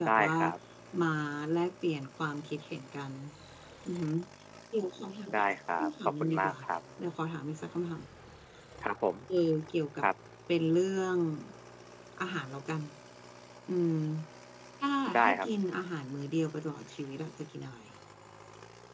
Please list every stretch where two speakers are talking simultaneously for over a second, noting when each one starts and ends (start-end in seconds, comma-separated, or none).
5.3-6.5